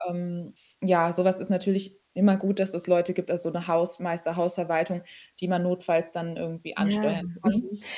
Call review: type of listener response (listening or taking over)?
taking over